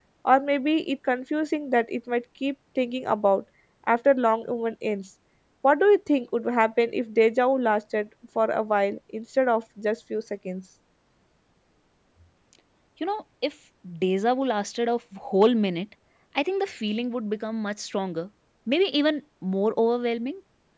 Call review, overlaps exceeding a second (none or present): none